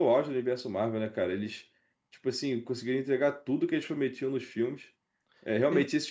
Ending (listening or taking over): listening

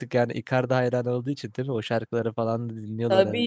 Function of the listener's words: taking over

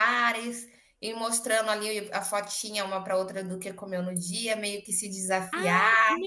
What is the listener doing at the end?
taking over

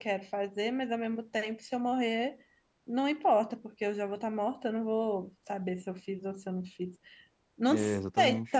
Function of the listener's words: listening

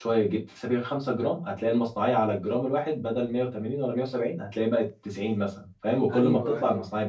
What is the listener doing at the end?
taking over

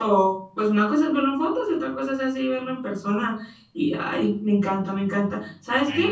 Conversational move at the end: listening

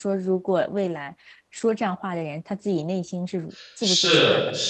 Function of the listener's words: taking over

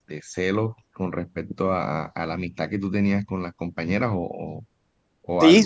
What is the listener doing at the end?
taking over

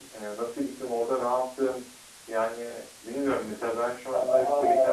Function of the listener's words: taking over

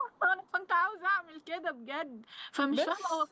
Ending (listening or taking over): listening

